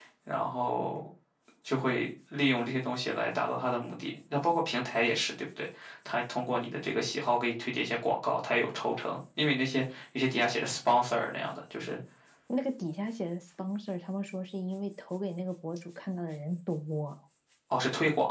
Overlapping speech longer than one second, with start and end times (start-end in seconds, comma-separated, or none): none